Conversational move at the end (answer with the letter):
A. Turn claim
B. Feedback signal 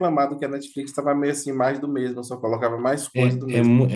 A